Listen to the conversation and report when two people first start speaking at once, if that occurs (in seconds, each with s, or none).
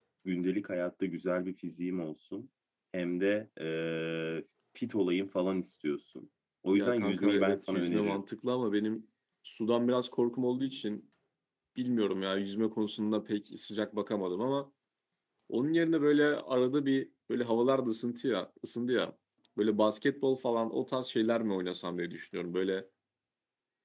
6.7 s